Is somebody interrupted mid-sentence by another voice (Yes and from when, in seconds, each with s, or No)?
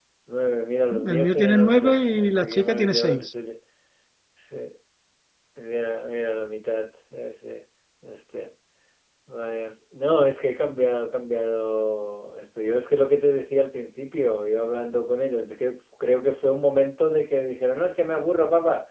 Yes, from 1.1 s